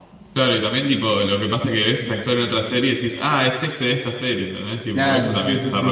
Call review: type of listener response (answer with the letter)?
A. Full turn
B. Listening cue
A